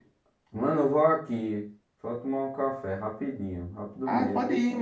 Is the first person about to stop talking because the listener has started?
Yes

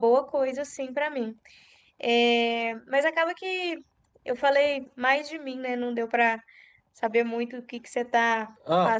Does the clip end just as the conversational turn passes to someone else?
Yes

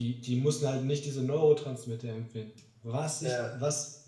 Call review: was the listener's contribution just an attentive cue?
Yes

